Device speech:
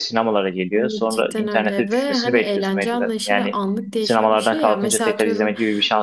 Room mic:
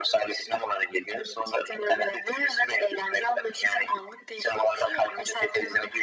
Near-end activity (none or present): none